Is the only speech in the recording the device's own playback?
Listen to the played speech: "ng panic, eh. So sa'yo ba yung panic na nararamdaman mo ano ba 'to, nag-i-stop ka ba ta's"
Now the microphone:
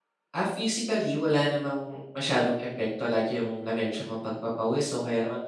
No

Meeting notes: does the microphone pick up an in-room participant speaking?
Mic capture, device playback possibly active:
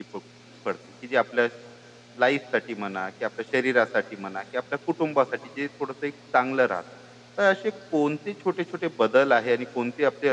Yes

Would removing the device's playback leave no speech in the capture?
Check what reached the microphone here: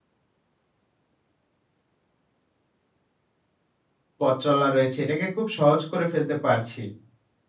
No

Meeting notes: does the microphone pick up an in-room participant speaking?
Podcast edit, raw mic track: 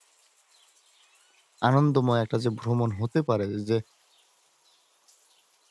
Yes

